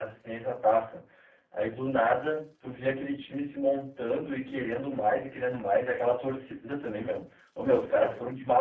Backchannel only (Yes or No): Yes